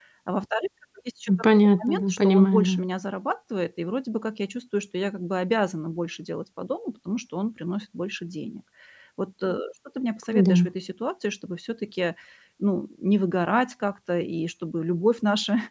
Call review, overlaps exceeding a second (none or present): present